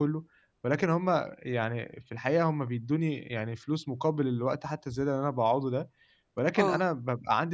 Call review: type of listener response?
listening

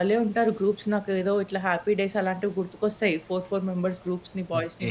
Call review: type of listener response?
taking over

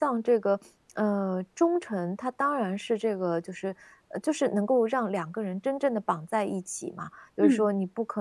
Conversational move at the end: listening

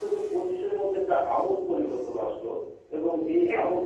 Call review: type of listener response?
listening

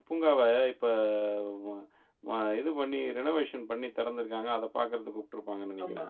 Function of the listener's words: taking over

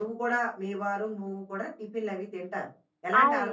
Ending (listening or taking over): taking over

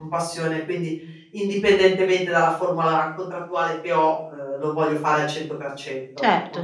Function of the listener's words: taking over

